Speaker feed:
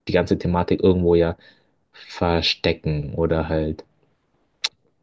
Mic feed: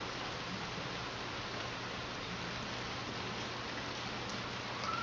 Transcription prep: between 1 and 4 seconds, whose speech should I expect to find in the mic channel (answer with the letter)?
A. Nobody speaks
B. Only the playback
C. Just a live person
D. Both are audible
A